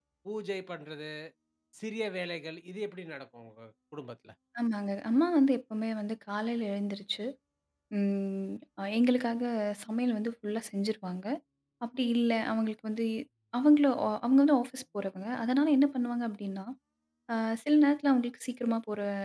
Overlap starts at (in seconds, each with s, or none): none